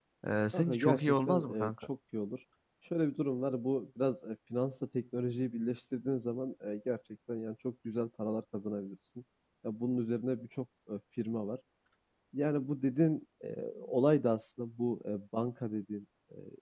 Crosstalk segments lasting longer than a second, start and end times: 0.5-1.9

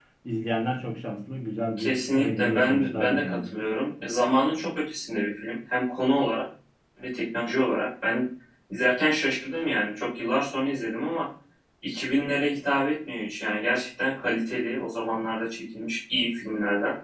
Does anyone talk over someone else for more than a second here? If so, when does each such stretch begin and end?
1.8-3.4

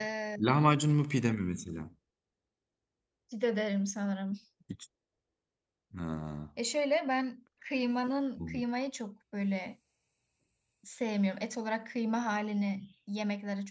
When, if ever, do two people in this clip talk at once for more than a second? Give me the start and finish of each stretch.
none

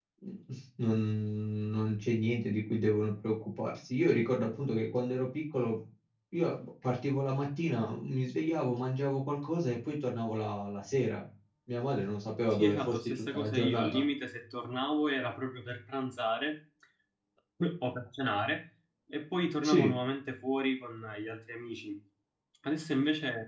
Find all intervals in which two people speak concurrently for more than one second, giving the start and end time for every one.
12.5-14.0

